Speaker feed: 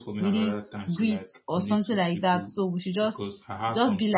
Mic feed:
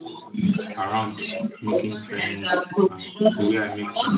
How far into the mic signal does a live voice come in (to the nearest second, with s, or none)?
1 s